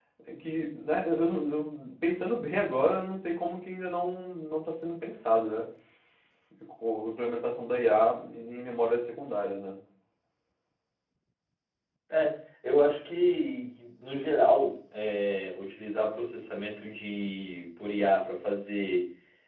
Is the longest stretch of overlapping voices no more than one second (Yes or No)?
Yes